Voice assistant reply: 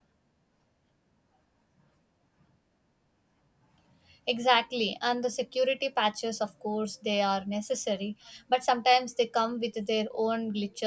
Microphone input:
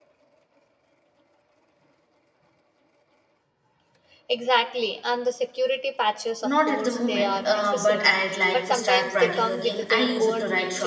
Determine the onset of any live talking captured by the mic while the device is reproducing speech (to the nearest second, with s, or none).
6 s